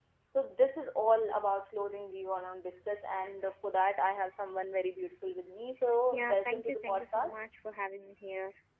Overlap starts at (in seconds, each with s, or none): 6.1 s